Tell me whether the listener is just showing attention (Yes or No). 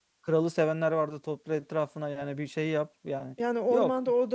No